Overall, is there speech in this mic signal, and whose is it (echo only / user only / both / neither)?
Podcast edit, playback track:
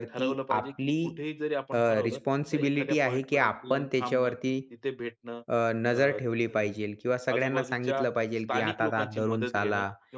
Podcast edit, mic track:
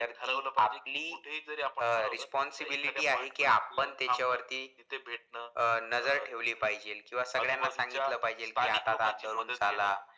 echo only